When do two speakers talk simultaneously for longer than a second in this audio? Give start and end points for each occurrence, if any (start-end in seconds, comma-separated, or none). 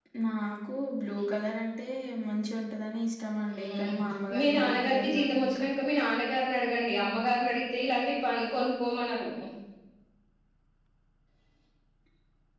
4.4-5.6